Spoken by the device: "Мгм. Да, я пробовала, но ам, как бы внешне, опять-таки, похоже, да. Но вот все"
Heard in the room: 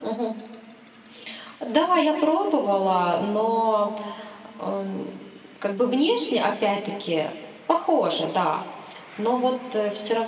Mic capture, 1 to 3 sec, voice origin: echo only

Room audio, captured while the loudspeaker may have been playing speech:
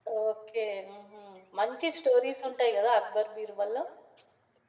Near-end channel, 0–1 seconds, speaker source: echo only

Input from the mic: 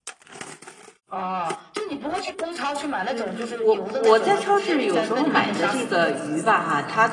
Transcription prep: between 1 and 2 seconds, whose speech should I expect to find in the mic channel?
echo only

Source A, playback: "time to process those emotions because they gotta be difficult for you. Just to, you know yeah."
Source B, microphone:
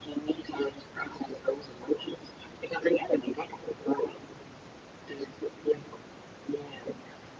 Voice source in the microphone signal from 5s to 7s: echo only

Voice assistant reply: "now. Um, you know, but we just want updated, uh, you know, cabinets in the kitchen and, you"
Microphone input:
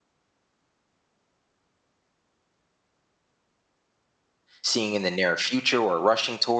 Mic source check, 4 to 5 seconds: user only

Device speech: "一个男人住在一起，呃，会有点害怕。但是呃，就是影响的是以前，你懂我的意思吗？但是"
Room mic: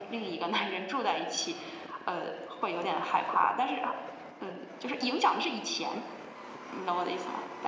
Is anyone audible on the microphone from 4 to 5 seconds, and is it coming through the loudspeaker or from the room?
echo only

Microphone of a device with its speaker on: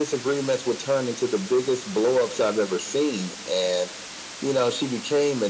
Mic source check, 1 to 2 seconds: echo only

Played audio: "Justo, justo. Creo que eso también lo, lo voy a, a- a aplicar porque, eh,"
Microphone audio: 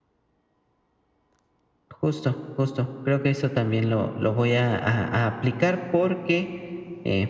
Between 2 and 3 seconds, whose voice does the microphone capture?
echo only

